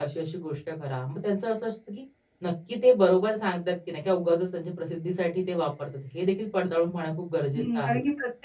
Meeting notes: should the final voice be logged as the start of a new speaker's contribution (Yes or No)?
Yes